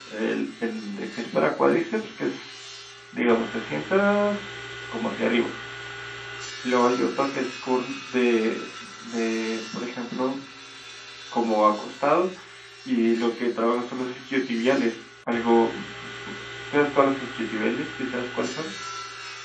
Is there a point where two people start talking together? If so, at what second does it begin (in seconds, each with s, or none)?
none